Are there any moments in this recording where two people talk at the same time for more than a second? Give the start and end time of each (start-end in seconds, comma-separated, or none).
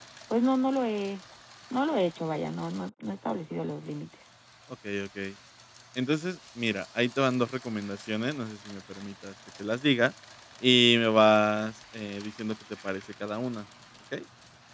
none